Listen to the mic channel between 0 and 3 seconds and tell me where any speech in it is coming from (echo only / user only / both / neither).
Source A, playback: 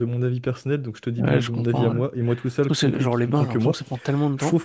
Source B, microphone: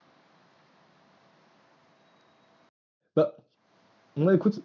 neither